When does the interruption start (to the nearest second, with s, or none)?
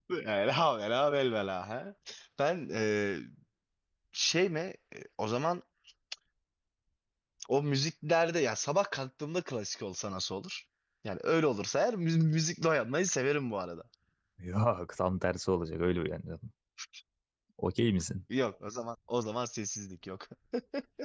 none